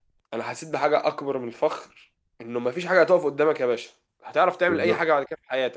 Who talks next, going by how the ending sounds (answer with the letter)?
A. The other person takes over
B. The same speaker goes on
B